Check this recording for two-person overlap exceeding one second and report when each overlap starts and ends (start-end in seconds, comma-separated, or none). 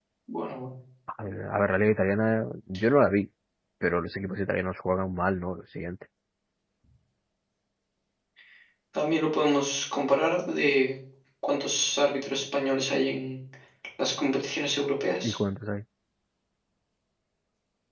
none